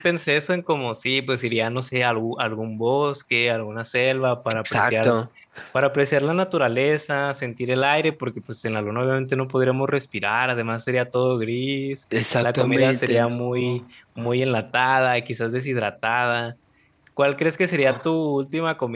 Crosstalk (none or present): present